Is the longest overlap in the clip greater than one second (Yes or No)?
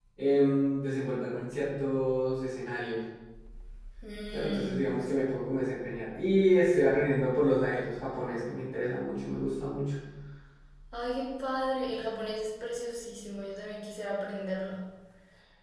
No